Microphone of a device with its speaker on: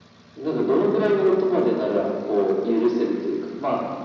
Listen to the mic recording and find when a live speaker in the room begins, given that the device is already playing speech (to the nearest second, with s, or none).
none